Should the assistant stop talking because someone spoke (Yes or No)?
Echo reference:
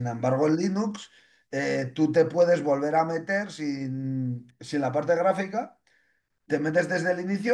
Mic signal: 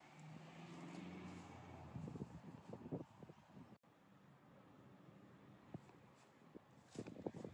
No